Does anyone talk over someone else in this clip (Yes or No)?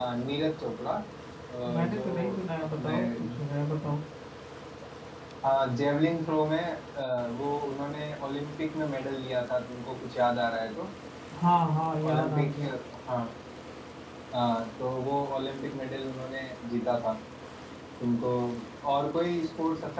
Yes